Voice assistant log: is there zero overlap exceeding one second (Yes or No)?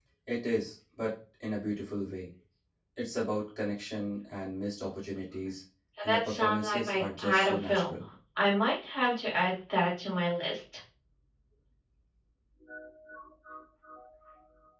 No